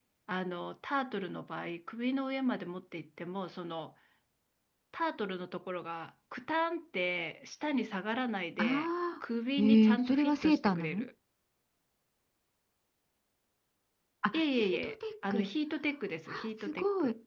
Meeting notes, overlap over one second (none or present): present